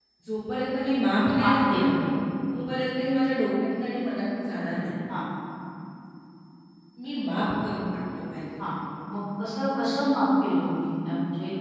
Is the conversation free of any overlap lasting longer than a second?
Yes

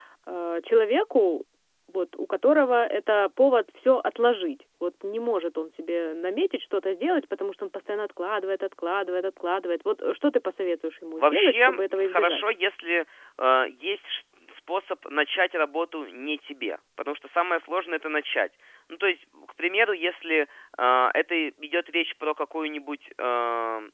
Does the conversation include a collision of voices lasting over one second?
Yes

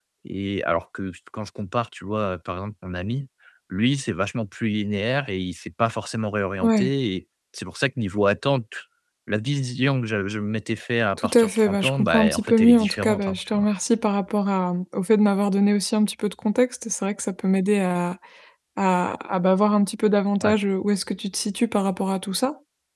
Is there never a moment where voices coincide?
No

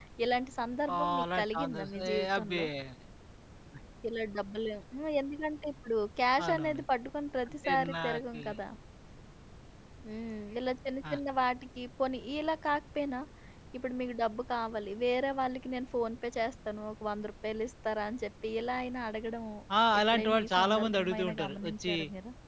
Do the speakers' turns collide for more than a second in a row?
Yes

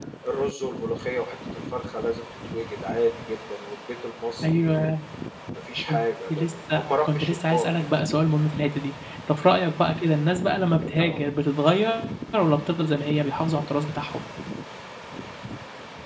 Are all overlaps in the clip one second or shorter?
No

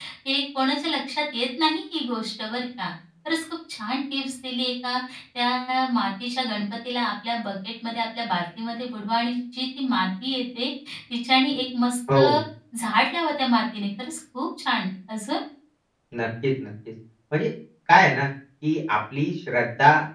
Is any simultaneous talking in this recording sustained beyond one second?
No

